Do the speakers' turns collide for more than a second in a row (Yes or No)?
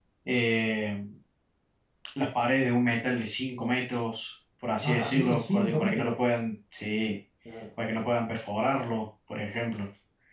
Yes